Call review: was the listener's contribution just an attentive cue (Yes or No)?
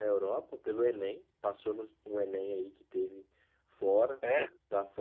Yes